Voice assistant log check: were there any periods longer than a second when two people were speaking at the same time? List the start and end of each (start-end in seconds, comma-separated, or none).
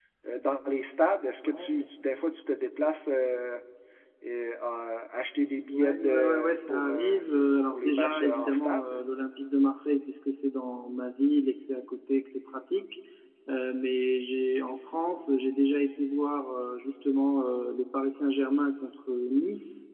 5.7-7.2, 7.7-9.0